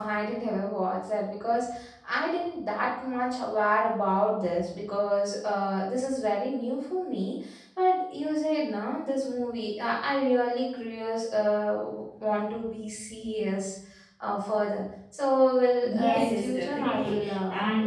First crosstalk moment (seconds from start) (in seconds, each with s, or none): 15.8 s